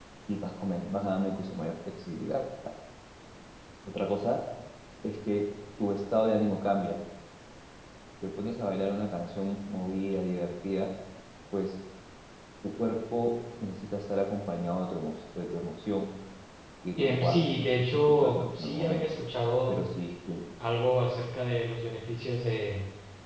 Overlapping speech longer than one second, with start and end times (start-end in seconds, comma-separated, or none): 17.0-19.2